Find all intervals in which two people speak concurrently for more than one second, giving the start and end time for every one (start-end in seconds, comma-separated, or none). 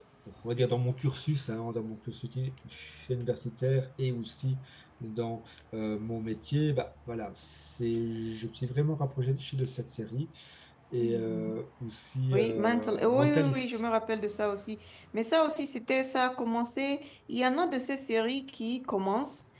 12.3-13.8